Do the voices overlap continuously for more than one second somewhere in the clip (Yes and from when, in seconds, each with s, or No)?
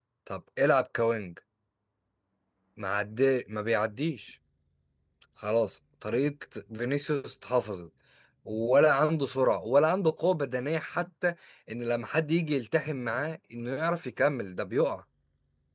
No